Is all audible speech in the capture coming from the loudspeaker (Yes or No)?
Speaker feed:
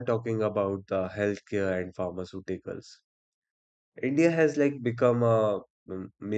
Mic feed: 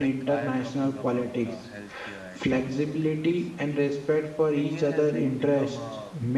No